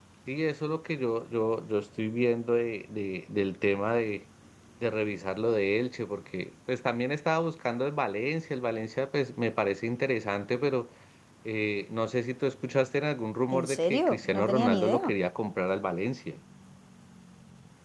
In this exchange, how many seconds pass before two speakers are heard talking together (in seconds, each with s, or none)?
13.5 s